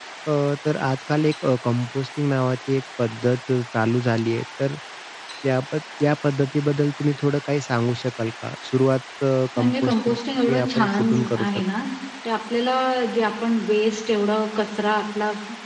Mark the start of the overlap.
9.6 s

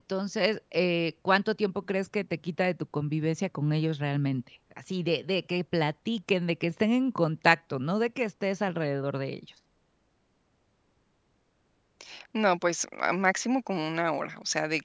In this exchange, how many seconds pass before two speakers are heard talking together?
none

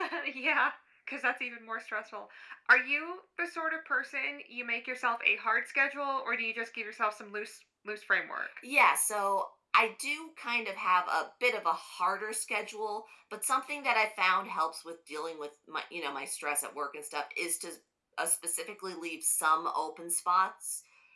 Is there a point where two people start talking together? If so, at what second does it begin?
none

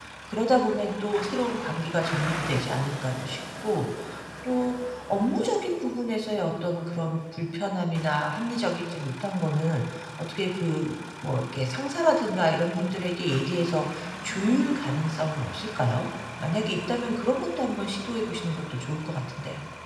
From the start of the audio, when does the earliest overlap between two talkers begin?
none

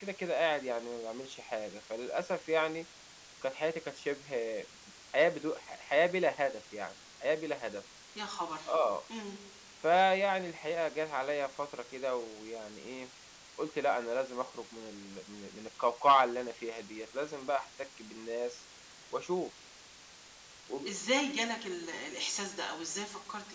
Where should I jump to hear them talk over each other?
none

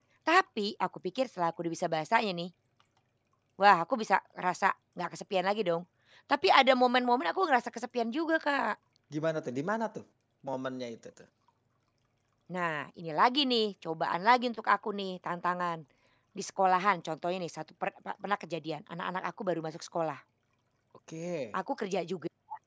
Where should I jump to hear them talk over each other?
none

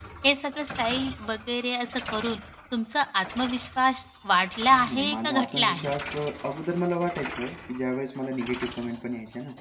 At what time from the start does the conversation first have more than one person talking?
4.7 s

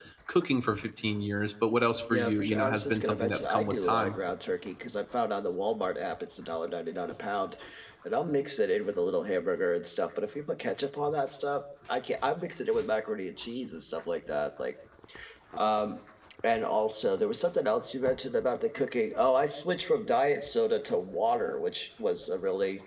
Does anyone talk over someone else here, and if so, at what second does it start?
2.1 s

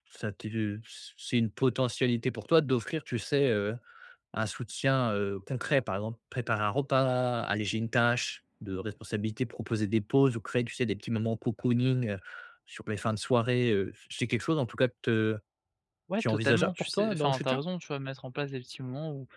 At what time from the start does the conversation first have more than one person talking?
16.2 s

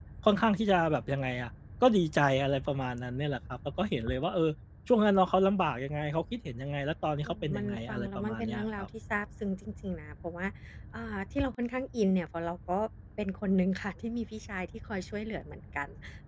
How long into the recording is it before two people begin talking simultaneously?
7.2 s

